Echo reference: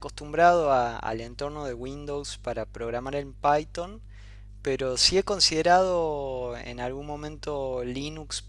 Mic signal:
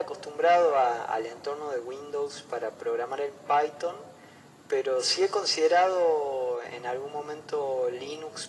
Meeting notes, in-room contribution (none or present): none